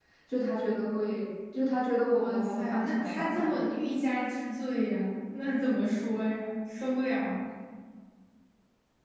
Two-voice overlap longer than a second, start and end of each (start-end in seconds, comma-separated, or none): 2.1-3.6